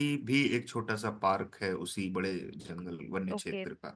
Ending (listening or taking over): taking over